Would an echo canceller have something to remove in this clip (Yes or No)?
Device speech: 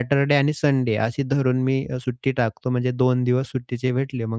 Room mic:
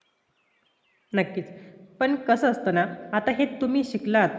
No